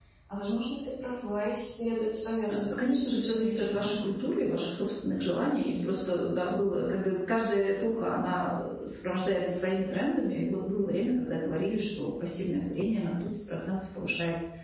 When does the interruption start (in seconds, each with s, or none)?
2.5 s